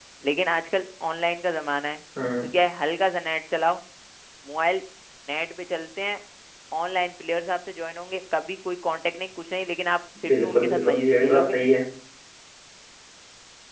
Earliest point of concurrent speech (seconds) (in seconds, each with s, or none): 10.2 s